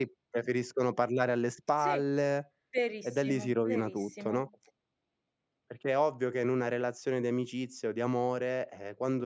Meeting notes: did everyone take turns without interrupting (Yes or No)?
No